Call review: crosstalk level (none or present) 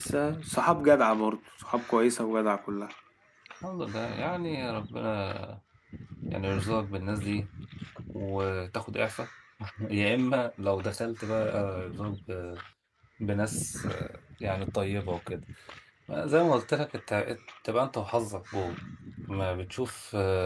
none